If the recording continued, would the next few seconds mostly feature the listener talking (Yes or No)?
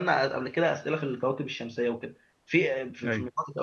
No